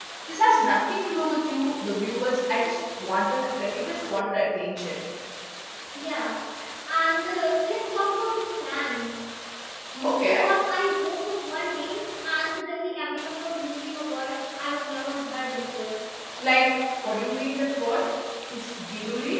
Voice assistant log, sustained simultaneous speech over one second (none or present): none